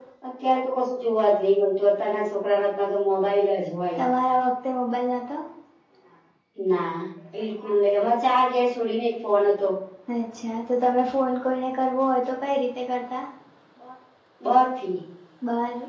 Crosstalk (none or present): none